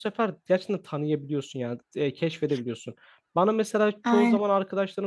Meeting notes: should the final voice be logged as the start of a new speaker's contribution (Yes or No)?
No